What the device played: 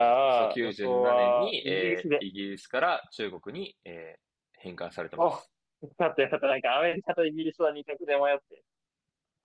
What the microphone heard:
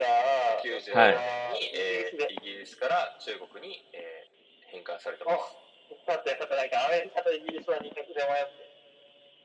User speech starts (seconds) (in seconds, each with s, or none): 0.9 s